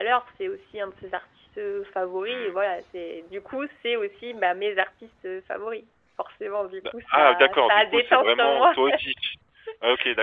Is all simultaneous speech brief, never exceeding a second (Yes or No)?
No